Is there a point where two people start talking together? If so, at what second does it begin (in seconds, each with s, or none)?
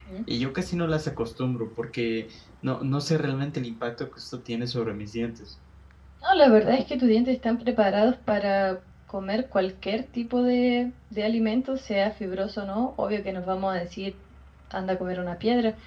none